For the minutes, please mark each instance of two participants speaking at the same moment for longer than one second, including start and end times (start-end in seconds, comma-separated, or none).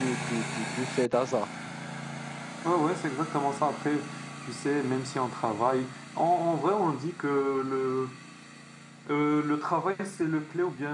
none